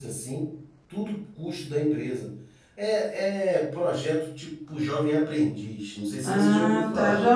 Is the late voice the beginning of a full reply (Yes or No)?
Yes